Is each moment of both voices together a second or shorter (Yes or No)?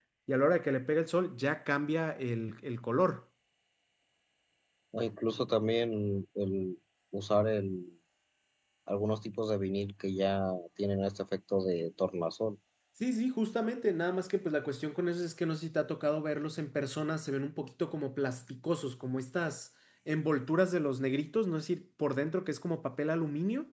Yes